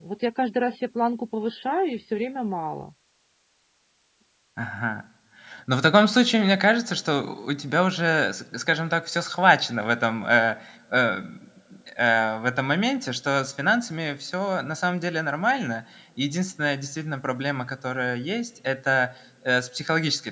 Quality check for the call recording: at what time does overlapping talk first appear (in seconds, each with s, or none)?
none